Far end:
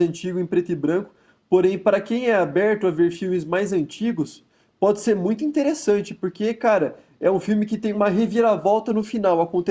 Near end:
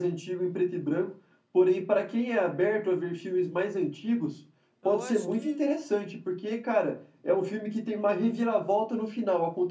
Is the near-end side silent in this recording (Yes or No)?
No